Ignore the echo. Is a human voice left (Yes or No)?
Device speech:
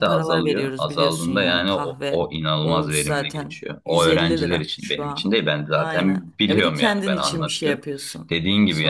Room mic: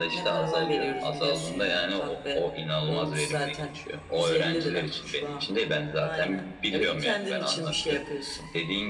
No